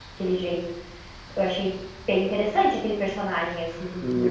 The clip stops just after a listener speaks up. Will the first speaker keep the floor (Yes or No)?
No